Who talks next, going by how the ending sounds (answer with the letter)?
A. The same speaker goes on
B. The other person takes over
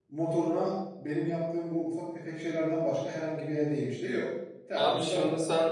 B